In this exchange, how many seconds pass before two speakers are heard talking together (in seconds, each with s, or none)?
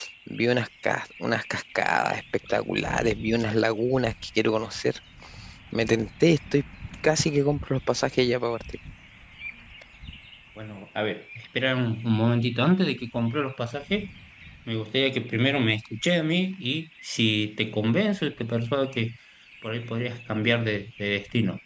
none